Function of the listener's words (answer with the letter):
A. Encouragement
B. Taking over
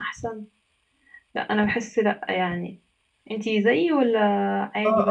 B